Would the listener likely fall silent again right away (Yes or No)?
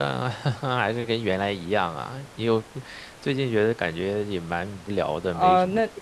No